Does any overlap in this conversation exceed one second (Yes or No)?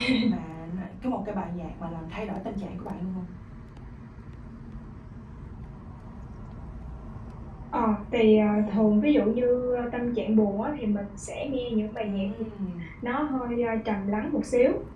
No